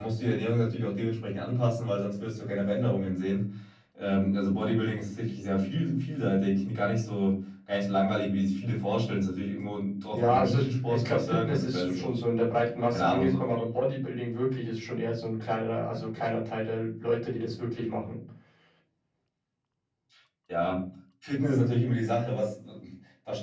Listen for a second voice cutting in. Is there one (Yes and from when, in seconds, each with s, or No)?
Yes, from 10.1 s